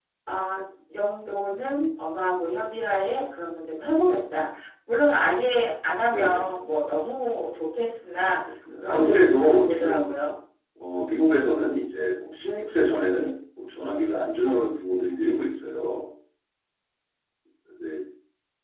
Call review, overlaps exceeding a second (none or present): present